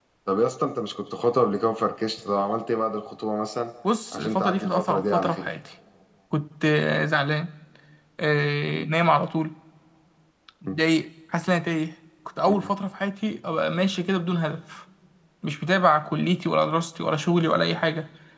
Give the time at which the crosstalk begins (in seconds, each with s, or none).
4.1 s